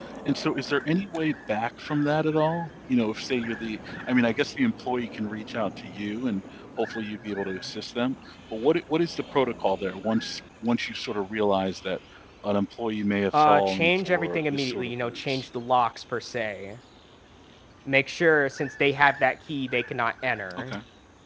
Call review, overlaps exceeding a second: present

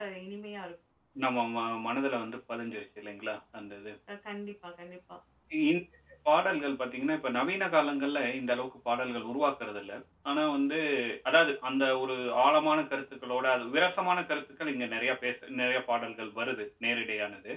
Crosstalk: none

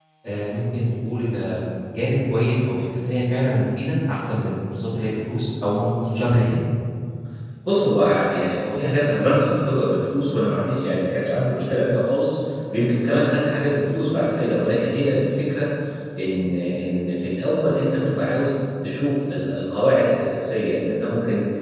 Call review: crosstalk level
none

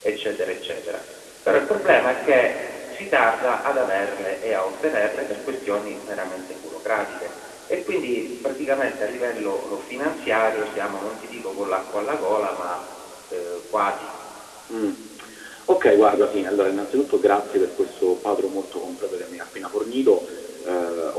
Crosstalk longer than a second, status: none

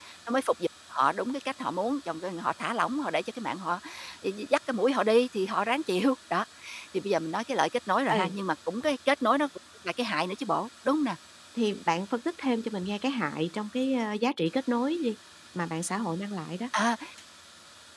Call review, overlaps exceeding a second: none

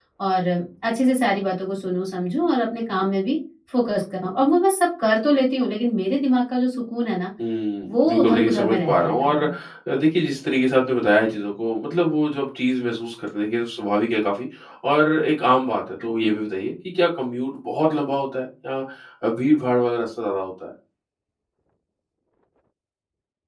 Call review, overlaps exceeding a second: present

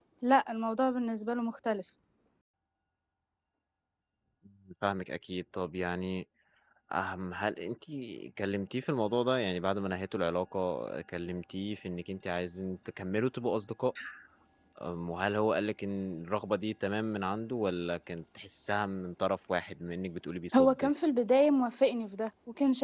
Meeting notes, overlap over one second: none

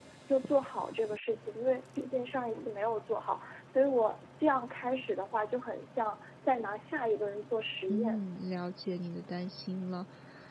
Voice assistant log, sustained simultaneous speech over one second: none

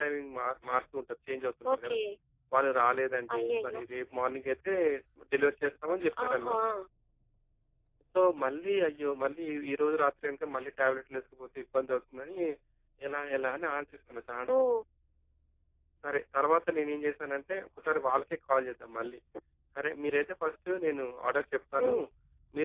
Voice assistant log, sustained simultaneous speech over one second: none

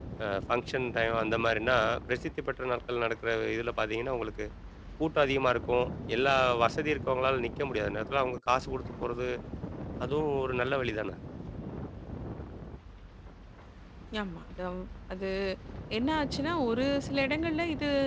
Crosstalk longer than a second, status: none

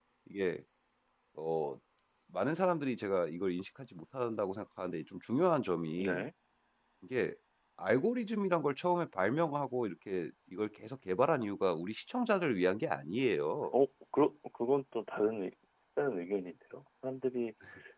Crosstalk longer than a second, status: none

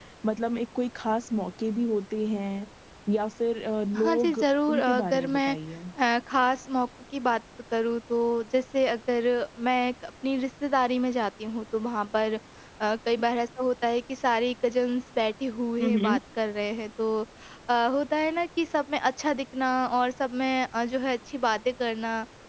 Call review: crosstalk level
present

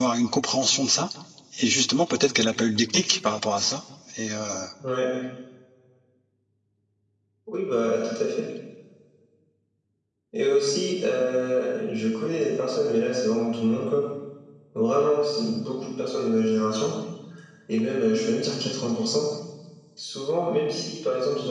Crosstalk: none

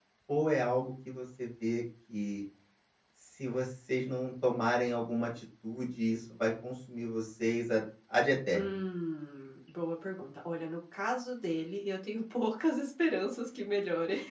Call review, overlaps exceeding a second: none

